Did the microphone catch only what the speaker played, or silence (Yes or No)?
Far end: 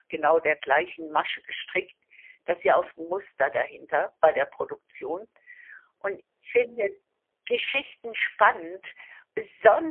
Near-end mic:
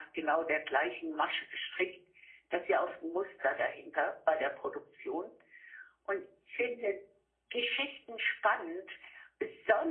Yes